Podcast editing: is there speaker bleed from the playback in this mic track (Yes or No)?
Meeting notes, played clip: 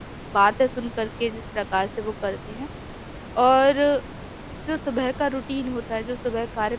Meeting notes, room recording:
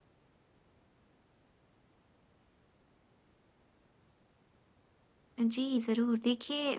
No